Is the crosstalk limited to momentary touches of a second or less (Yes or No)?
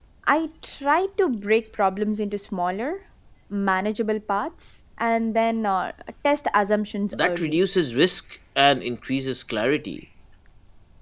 Yes